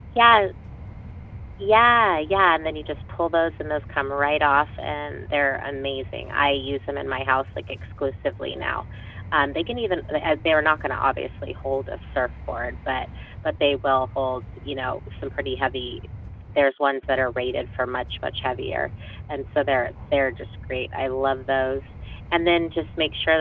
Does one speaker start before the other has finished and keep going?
No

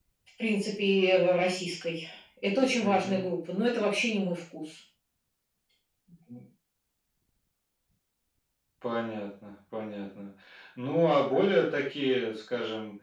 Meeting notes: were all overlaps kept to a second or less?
Yes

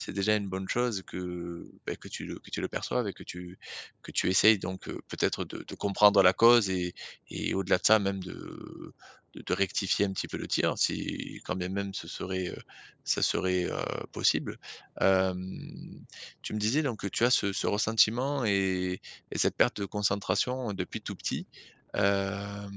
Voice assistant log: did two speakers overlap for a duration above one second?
No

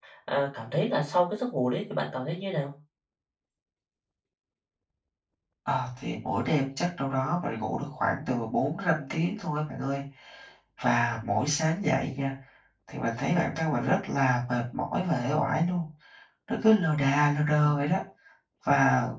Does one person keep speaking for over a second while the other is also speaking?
No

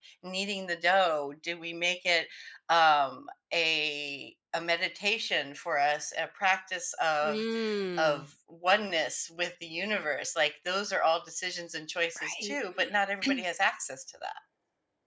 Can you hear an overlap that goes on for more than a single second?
No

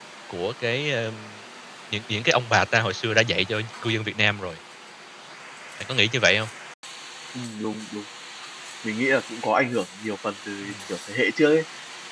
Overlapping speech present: No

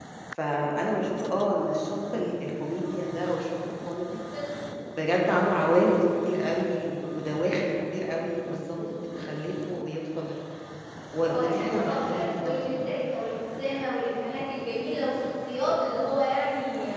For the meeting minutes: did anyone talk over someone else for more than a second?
Yes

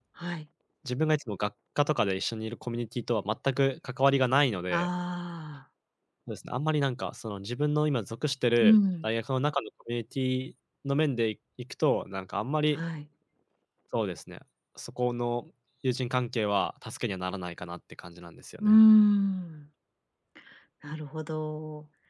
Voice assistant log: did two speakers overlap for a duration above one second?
No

